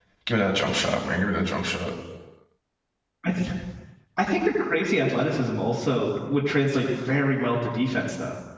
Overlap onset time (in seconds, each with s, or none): none